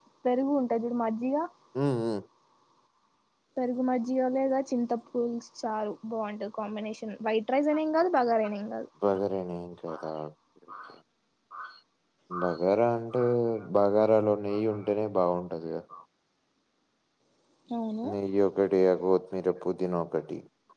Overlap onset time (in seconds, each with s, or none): none